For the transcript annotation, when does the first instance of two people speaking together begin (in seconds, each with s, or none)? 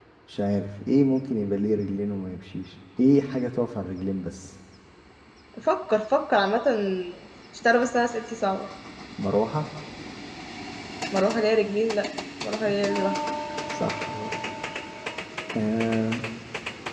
none